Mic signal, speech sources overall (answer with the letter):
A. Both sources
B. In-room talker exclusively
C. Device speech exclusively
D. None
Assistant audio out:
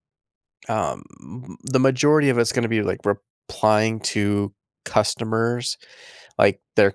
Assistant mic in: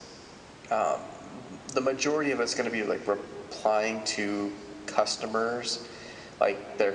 C